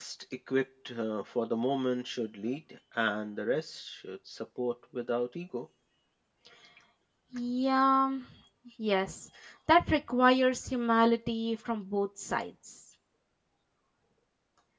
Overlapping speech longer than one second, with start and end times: none

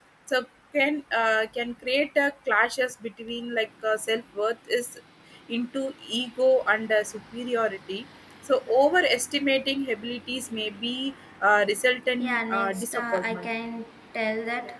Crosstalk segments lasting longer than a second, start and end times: 12.2-13.5

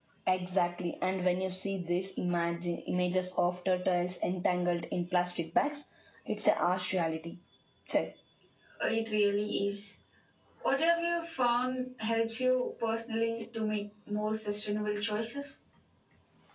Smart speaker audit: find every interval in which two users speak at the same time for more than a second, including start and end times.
none

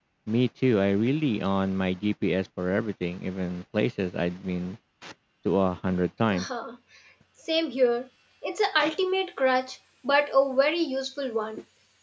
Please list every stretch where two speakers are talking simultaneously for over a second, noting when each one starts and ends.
none

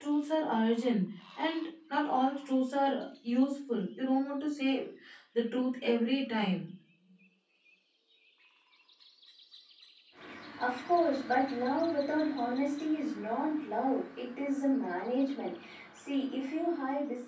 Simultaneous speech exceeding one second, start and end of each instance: none

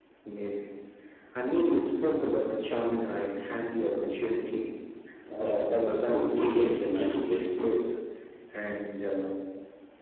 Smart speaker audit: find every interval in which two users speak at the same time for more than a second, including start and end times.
5.4-7.6

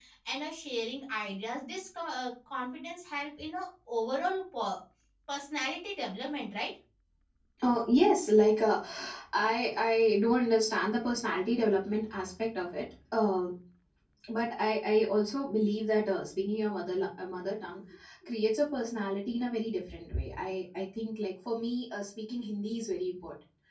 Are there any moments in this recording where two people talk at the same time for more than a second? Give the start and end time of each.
none

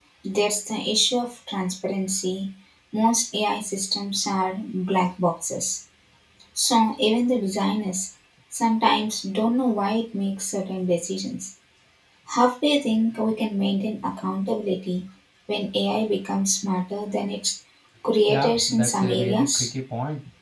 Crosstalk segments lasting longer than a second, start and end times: 18.3-19.7

